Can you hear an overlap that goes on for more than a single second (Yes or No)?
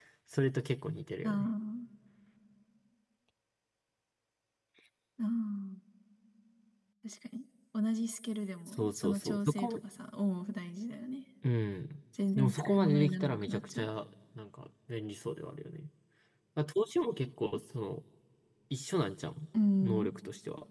Yes